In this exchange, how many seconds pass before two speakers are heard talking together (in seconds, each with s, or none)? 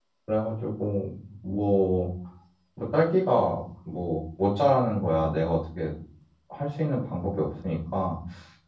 none